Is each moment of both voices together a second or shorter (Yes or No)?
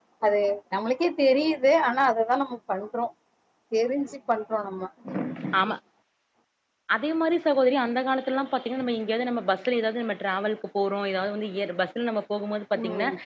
Yes